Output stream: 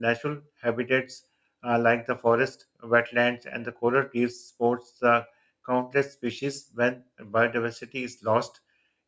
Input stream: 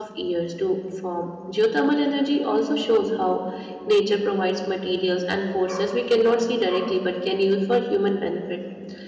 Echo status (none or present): none